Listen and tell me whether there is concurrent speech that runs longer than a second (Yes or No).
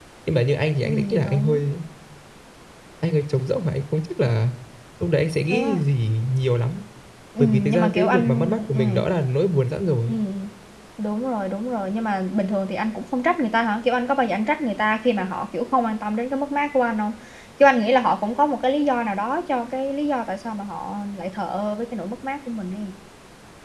Yes